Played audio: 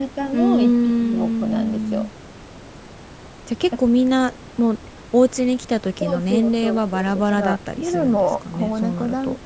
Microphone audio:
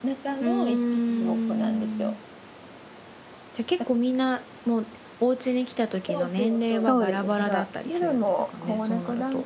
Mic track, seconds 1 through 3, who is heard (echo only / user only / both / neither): echo only